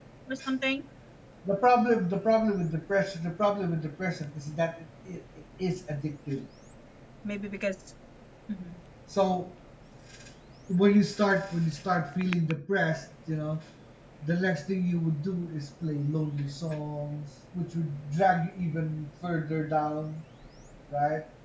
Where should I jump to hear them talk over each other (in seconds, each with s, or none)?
none